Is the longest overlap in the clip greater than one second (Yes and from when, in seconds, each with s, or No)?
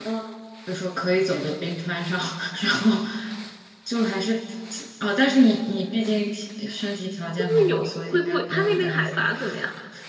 Yes, from 7.3 s